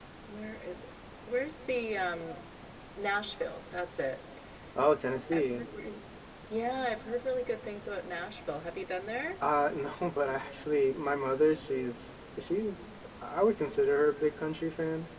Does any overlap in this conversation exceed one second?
No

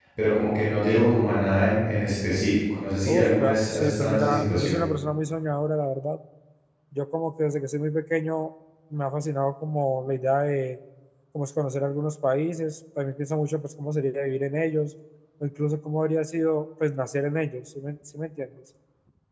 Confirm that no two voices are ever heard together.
No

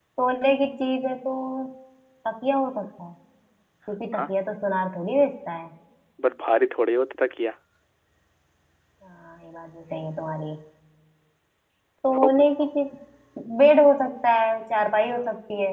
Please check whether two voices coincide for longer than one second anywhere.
No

